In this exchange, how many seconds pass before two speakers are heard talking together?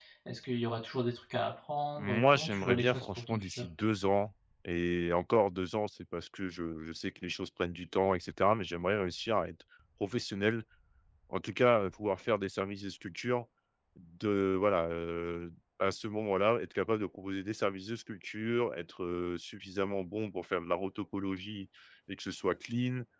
2 s

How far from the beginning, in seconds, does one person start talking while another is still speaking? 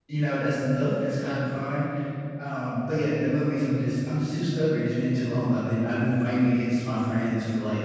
none

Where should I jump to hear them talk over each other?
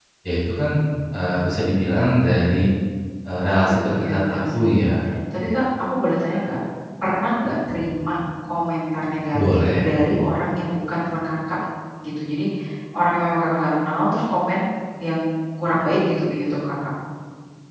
3 s

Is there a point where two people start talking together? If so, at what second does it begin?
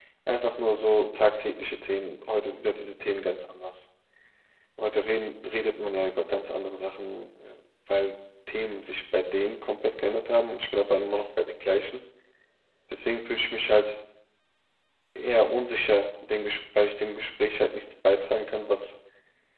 none

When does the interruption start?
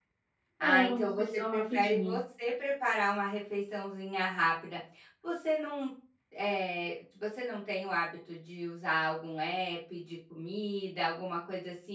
1 s

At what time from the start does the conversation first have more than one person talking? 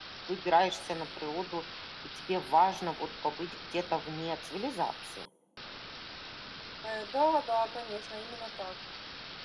none

